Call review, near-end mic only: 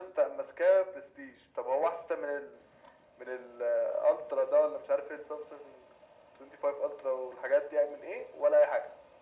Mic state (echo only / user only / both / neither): echo only